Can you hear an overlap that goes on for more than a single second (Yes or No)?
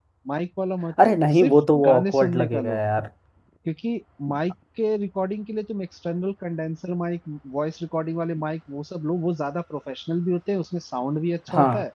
Yes